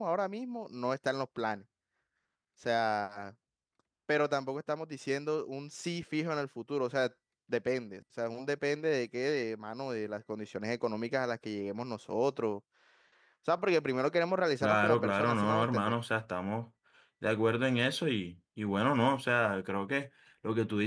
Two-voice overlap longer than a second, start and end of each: 14.6-15.9

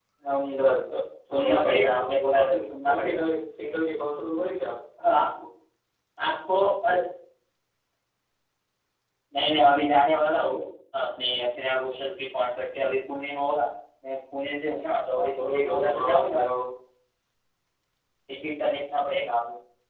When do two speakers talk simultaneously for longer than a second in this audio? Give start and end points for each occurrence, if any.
1.3-3.2, 15.2-16.4

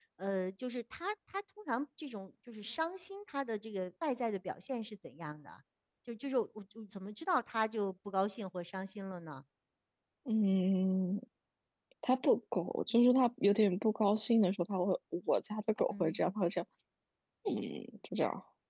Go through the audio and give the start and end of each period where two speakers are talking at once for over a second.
none

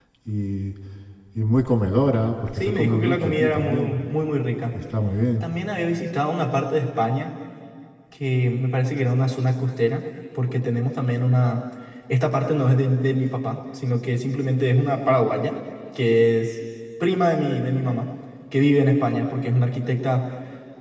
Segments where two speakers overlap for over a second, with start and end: 2.6-3.9

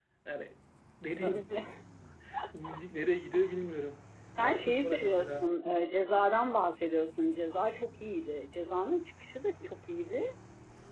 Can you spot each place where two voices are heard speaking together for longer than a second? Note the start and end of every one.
4.4-5.8

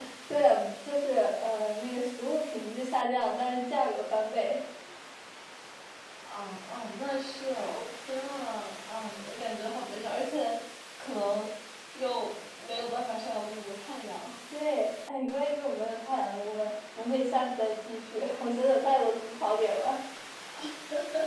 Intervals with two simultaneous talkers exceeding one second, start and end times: none

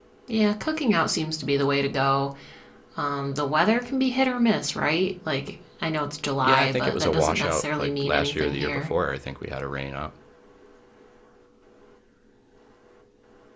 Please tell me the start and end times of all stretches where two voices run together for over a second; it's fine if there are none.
6.4-8.9

